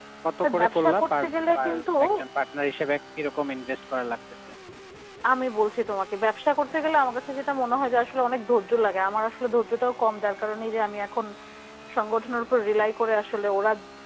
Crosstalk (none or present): present